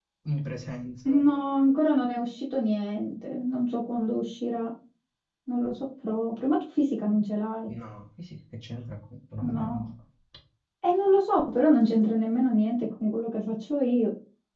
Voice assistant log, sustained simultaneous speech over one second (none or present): none